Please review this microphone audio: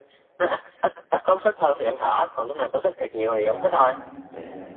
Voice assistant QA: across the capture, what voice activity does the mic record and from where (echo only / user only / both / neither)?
both